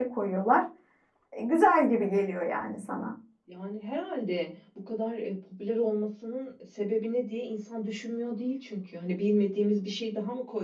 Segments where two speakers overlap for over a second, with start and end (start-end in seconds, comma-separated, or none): none